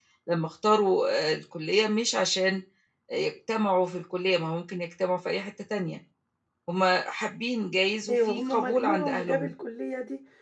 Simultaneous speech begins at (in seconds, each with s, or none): 8.1 s